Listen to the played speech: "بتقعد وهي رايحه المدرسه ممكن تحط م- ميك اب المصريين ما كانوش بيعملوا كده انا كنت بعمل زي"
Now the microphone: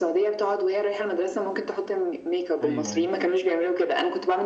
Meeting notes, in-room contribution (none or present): present